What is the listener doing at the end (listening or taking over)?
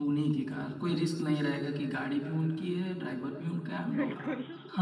listening